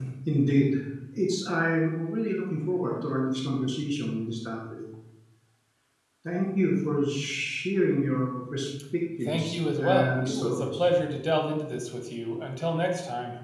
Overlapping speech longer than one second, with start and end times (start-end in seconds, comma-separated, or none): 9.2-10.9